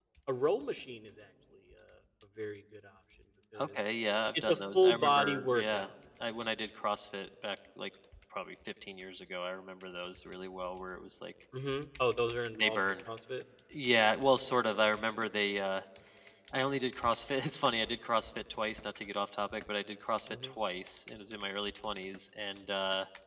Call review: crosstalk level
present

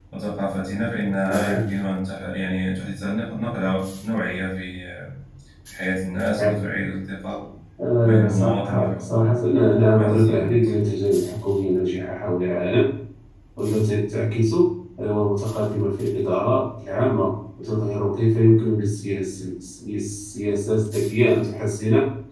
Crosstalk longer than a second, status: present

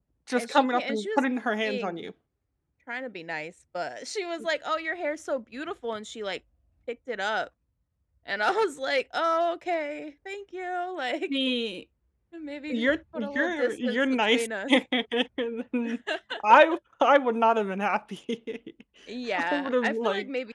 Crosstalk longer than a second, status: present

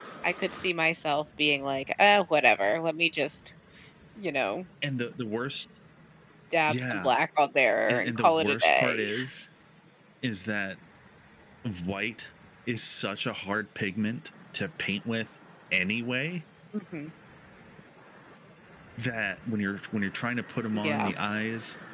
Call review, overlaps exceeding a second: present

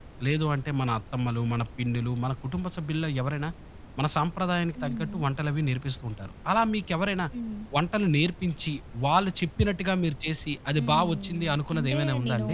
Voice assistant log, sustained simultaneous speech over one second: present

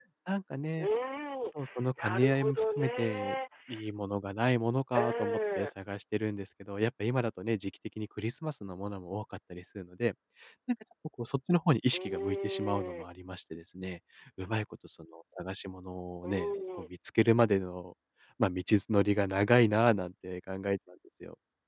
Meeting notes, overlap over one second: present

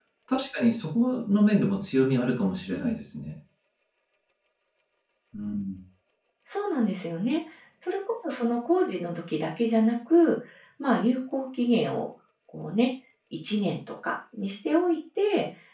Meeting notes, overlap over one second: none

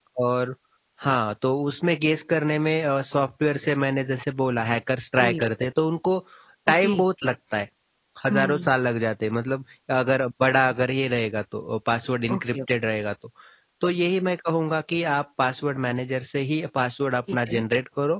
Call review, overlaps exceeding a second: none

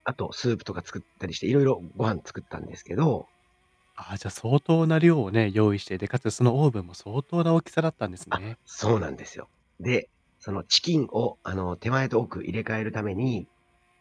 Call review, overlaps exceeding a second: none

